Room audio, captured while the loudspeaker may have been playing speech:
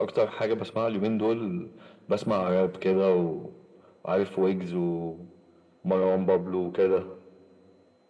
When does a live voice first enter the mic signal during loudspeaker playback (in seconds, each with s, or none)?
none